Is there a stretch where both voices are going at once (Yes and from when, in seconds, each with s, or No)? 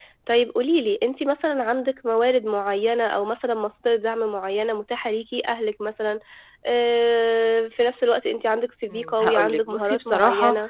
Yes, from 8.9 s